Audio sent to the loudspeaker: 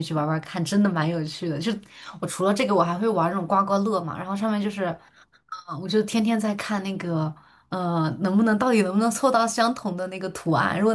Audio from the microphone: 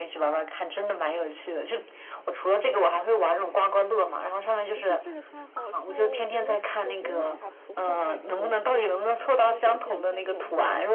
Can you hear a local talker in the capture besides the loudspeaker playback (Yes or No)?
Yes